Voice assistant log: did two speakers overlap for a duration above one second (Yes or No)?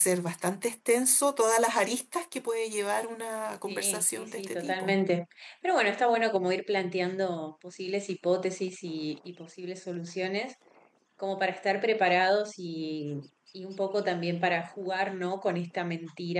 Yes